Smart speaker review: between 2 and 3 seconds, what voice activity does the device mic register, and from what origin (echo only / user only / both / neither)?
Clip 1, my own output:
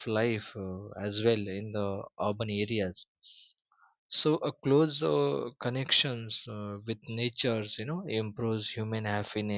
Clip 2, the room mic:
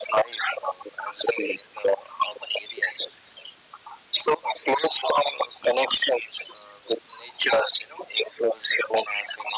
echo only